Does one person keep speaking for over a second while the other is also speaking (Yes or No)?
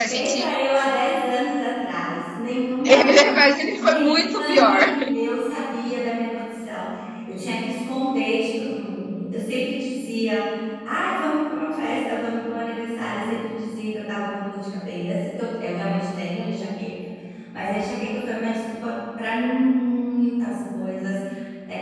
Yes